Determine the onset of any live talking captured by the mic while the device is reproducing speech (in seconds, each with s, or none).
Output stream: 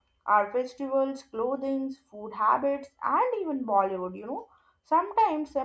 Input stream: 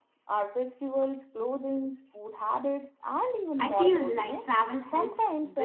3.6 s